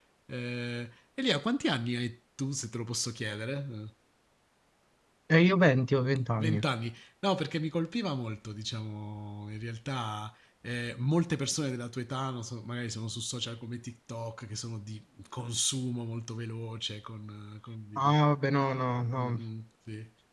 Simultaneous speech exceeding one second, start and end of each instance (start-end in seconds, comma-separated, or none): none